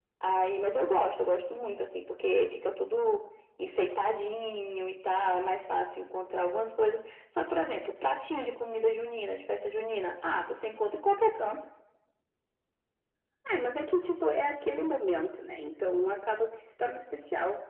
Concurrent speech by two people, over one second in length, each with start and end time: none

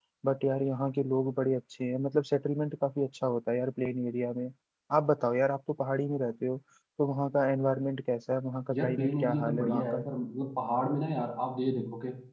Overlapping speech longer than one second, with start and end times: 8.7-10.1

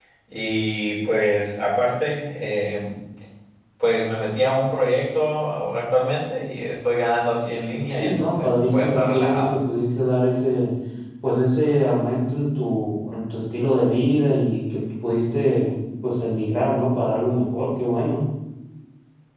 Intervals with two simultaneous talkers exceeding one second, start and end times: 7.9-9.5

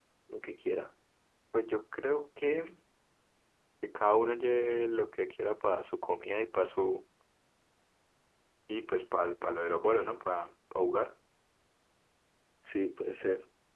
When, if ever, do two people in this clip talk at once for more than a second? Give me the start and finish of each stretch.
none

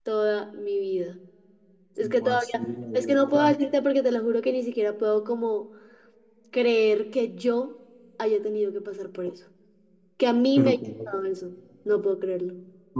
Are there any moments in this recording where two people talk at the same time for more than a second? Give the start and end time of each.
2.0-3.5

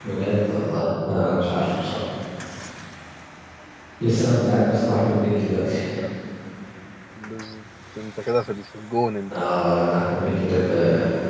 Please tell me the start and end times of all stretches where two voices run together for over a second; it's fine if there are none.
none

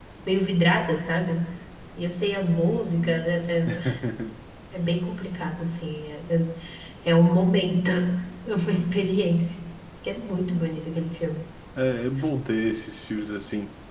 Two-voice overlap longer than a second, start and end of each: none

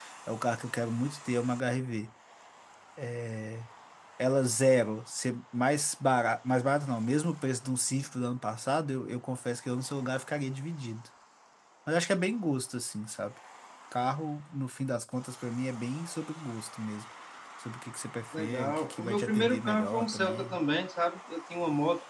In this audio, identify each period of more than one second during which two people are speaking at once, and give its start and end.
18.4-20.6

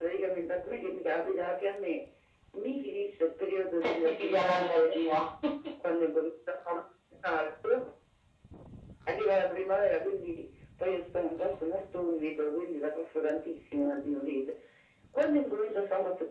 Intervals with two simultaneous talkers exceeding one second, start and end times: 3.9-5.0

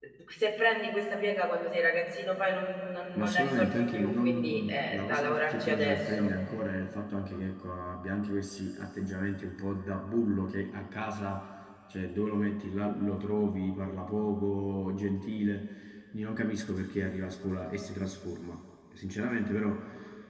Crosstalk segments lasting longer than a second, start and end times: 3.1-6.3

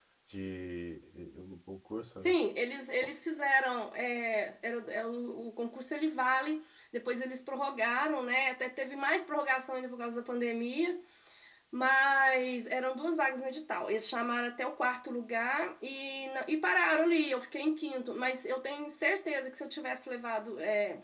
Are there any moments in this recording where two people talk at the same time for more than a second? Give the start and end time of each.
none

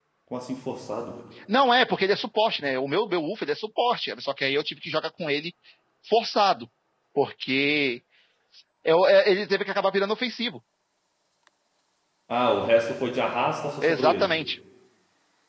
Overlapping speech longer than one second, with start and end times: none

